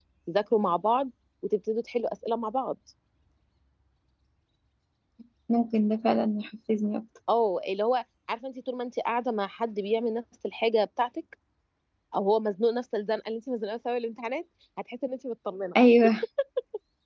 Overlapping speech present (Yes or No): No